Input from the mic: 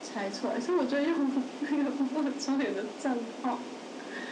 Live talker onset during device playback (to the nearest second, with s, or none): none